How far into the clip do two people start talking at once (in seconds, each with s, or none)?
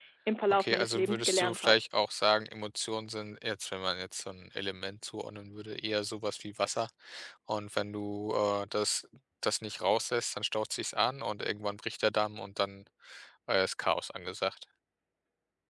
0.5 s